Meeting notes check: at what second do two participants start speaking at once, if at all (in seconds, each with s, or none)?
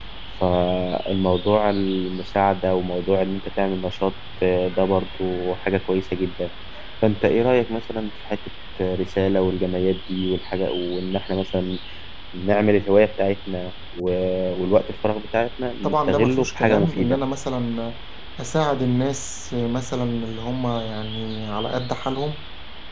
15.8 s